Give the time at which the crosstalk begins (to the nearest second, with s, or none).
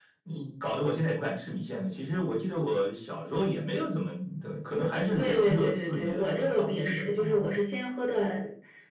5 s